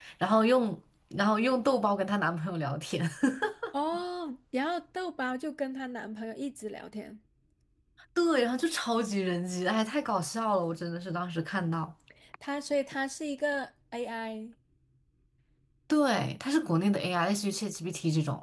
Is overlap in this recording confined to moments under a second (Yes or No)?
Yes